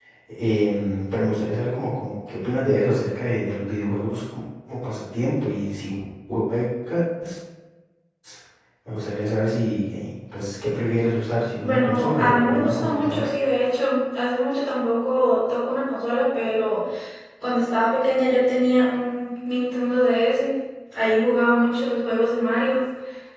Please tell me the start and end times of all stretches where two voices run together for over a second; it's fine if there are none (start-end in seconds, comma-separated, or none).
11.6-13.3